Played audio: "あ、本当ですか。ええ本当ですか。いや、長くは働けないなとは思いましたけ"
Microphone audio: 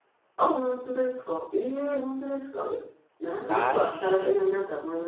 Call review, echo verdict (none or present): present